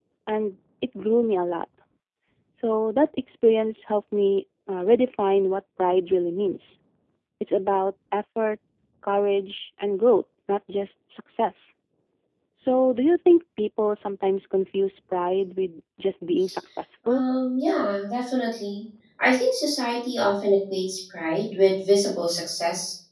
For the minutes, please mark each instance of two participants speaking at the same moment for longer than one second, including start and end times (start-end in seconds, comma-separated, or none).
none